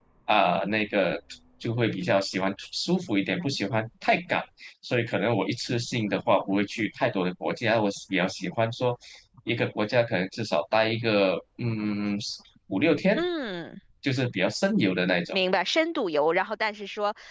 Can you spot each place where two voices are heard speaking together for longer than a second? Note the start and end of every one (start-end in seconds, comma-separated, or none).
none